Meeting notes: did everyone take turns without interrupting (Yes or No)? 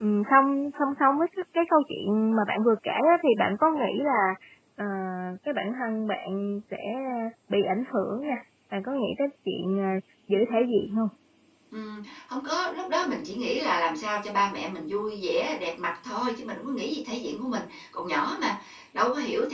Yes